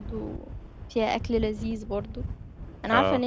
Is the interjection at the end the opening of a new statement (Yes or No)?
No